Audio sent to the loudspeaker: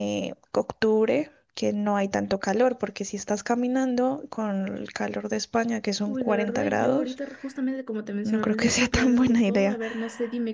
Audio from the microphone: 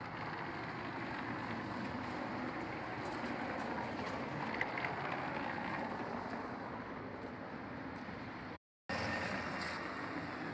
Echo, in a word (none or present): none